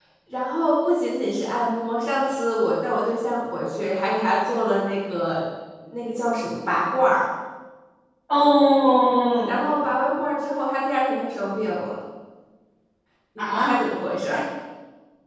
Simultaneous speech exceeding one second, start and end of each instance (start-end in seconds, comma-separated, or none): none